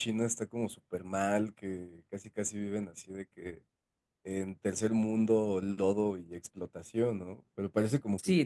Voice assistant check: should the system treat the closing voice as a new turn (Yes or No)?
Yes